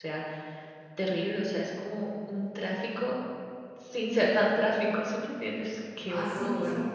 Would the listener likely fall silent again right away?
No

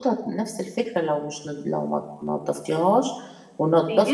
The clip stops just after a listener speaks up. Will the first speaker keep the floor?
No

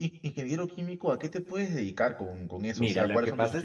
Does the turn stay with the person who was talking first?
No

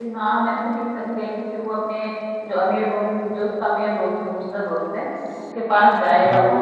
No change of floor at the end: Yes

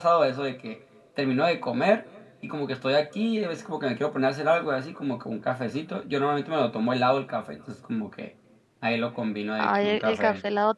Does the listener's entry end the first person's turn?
Yes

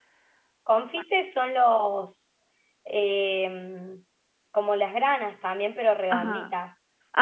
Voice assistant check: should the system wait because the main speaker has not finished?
No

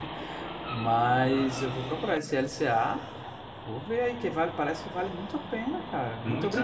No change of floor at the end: No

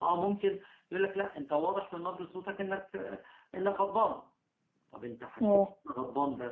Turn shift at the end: No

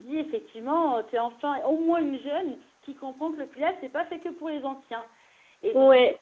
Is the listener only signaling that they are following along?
Yes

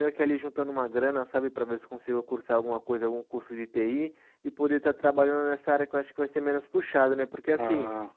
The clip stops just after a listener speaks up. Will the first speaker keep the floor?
Yes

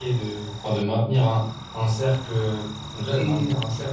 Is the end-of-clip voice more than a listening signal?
No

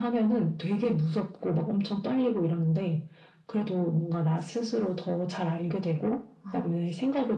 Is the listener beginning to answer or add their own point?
No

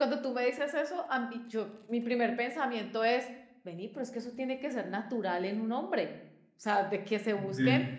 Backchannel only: Yes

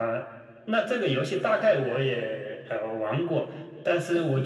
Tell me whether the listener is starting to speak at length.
No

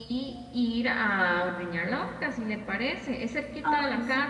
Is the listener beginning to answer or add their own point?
No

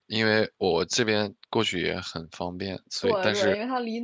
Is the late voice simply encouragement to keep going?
No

